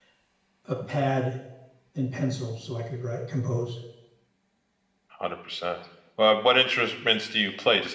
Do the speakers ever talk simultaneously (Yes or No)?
No